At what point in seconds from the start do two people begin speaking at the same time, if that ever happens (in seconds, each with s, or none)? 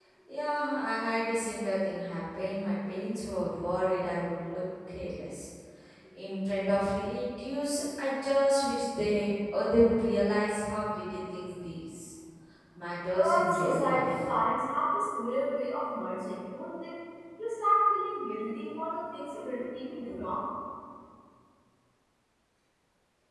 13.2 s